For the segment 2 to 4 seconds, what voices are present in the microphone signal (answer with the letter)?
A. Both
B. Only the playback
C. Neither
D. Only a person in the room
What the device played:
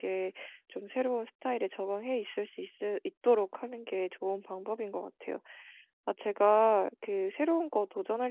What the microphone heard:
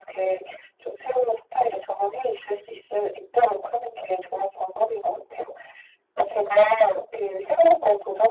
B